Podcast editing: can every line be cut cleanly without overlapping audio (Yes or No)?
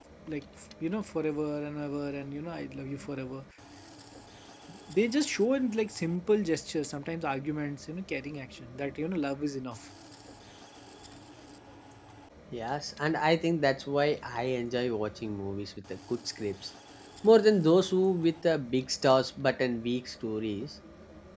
Yes